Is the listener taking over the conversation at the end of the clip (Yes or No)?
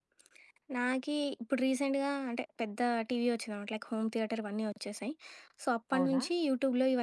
No